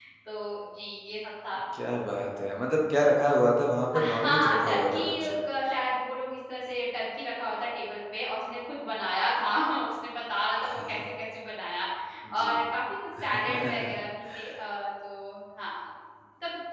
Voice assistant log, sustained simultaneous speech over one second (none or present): present